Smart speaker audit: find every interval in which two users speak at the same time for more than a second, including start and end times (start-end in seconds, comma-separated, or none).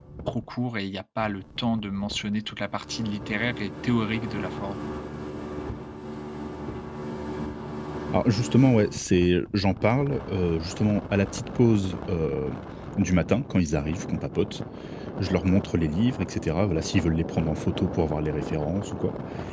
none